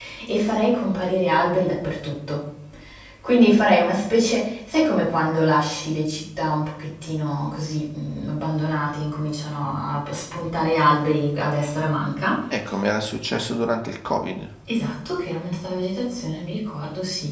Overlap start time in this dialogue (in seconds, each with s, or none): none